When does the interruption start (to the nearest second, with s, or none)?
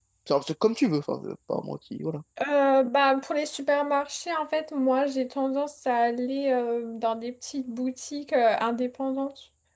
none